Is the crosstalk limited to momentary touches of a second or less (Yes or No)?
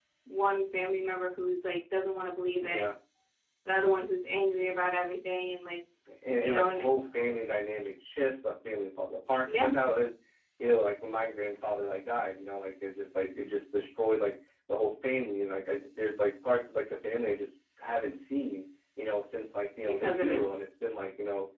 Yes